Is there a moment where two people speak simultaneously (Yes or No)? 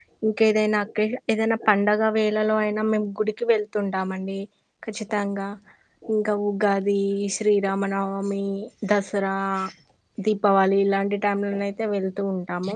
No